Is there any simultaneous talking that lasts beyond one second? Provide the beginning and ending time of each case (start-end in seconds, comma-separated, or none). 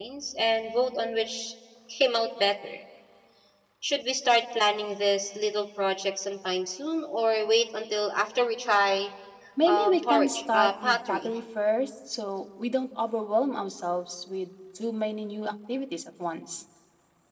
9.6-11.3